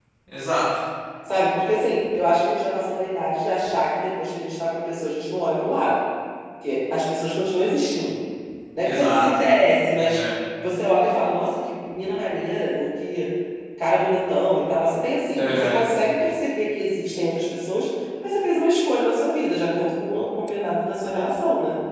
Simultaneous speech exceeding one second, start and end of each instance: none

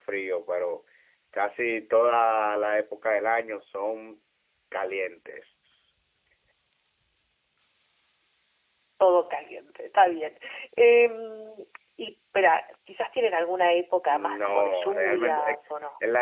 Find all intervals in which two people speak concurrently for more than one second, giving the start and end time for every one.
14.1-15.6

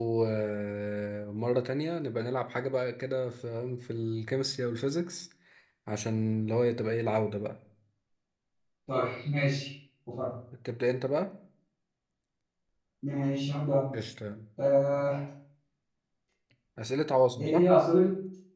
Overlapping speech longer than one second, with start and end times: none

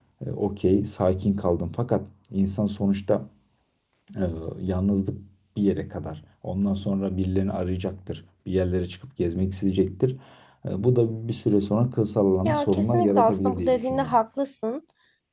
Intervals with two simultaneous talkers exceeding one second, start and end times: 12.4-14.2

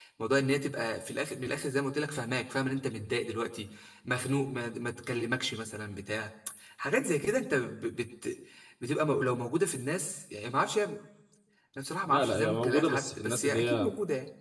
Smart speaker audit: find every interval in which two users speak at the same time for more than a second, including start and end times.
12.1-13.9

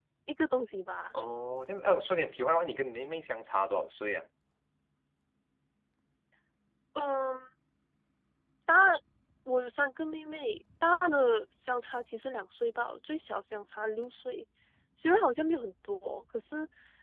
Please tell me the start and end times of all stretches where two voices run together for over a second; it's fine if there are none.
none

